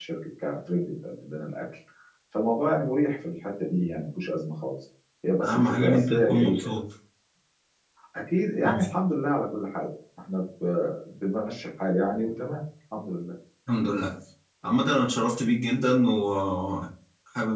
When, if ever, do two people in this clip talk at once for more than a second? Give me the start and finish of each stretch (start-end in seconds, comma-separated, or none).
5.5-6.8